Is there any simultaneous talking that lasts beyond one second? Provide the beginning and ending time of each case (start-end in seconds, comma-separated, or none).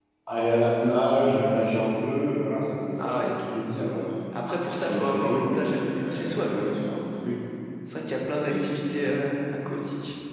4.9-6.8